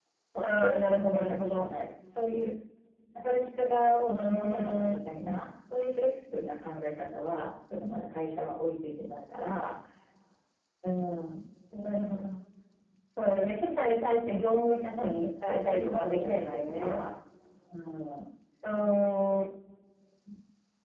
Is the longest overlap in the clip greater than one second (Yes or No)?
Yes